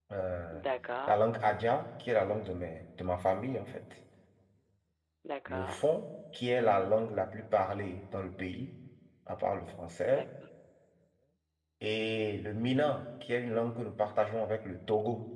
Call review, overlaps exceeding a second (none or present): none